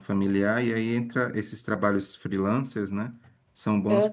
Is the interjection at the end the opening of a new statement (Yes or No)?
No